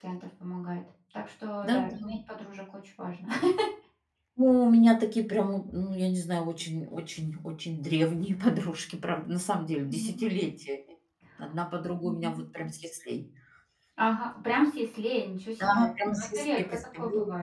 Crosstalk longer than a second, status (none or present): present